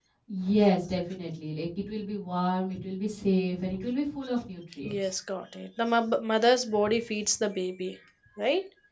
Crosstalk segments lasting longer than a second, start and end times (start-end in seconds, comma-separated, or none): none